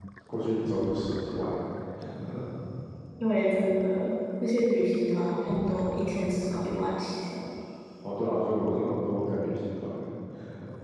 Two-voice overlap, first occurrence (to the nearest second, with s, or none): none